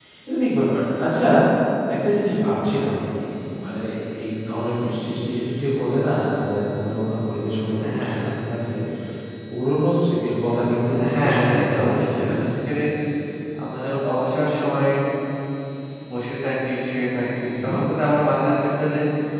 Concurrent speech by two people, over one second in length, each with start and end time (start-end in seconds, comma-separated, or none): 10.9-12.3